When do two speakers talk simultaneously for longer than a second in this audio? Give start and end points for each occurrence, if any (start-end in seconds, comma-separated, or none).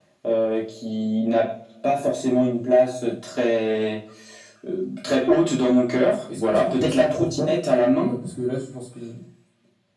6.1-7.6